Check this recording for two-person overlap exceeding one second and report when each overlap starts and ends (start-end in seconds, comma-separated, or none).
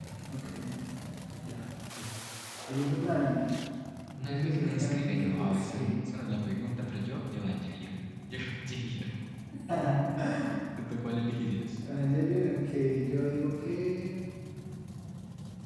4.3-5.9